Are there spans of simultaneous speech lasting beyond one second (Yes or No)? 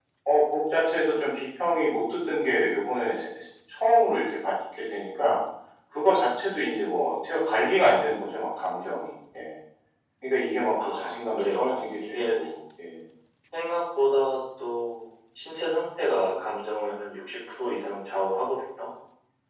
Yes